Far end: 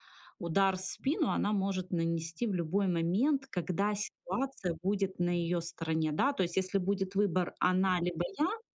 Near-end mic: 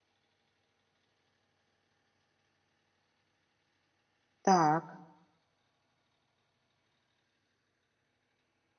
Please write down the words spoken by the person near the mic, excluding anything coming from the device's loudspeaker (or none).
Так.